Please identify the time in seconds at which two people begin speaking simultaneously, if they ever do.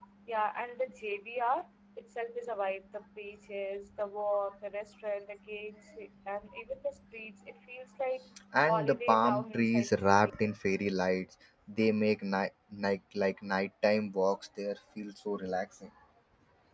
8.7 s

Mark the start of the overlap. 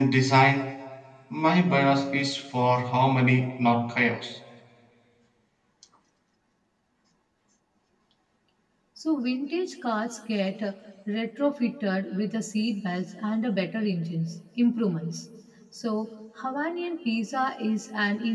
none

